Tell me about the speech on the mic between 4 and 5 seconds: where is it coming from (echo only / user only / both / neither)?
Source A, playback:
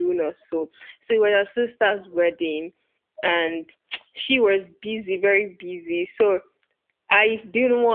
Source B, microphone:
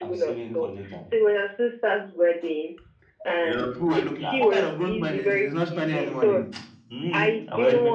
both